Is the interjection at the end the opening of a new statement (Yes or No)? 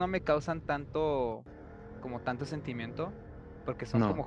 No